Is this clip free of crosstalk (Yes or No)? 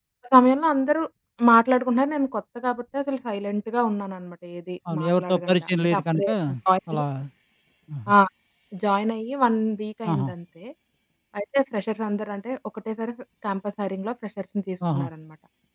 No